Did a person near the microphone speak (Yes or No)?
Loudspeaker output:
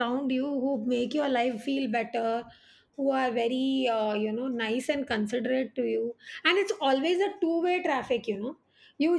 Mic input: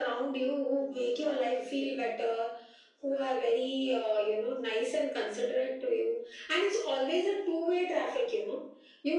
No